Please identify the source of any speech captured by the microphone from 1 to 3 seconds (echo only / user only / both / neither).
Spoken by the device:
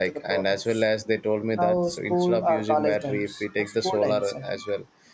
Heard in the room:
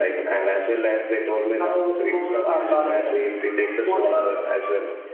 echo only